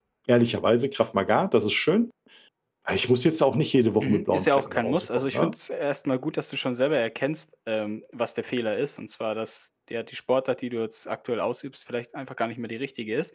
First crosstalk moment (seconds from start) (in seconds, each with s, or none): 4.0 s